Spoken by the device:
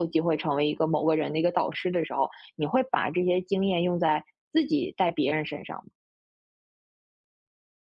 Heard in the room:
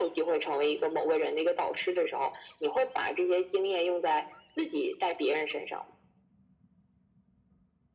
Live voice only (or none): none